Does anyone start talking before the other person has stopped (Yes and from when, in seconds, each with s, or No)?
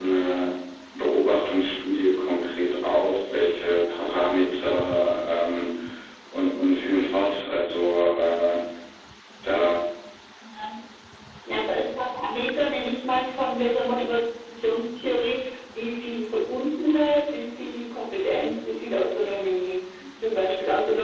No